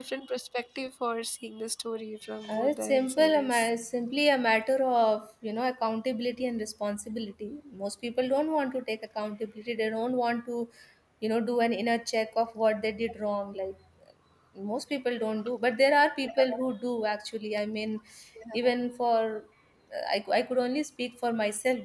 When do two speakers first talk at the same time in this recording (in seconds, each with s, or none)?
2.5 s